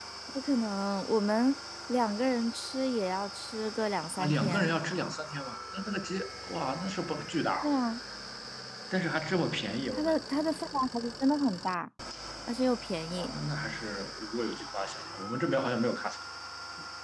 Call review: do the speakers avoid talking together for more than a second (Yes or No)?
Yes